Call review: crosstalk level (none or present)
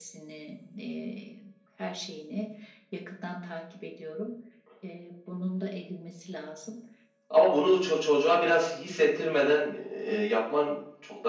none